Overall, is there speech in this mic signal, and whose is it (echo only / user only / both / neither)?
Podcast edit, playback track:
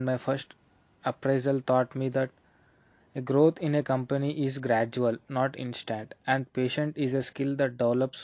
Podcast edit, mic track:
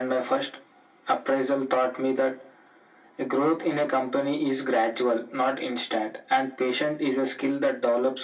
echo only